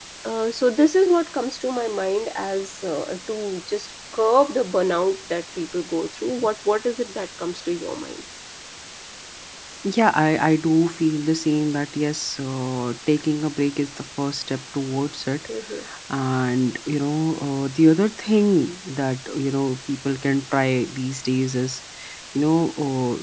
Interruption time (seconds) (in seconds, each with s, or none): none